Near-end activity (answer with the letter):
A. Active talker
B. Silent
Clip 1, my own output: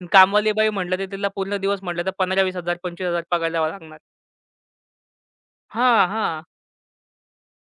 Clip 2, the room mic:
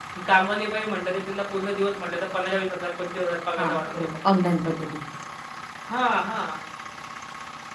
A